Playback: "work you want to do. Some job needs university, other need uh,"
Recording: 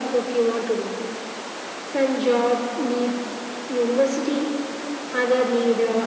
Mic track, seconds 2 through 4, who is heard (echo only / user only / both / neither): echo only